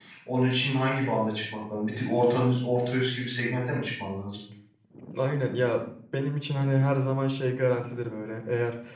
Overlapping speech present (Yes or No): No